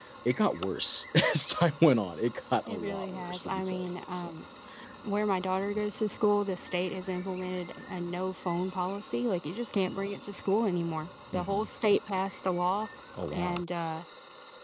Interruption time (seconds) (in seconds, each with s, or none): 2.7 s